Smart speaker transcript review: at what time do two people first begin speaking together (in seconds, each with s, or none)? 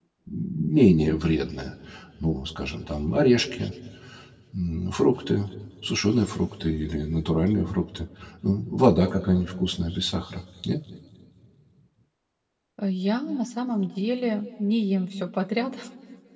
none